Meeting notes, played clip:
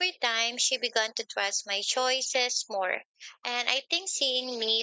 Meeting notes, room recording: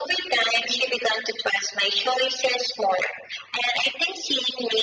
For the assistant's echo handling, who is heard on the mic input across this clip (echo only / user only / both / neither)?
echo only